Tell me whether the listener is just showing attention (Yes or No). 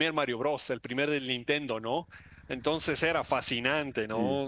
Yes